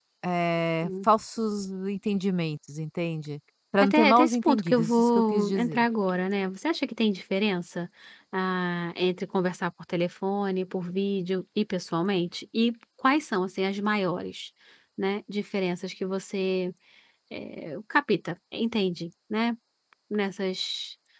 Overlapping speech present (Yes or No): Yes